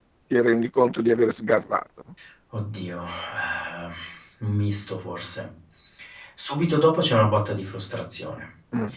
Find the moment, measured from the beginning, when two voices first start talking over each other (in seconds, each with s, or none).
none